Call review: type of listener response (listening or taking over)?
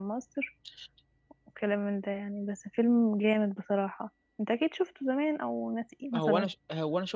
taking over